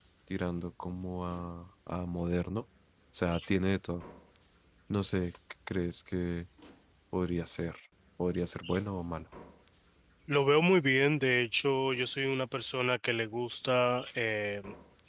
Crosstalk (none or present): none